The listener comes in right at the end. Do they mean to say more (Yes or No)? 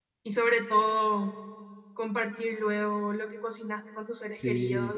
No